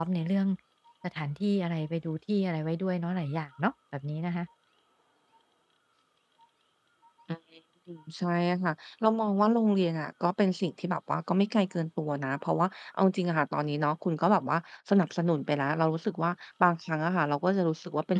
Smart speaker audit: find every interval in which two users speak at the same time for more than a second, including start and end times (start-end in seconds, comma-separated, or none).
none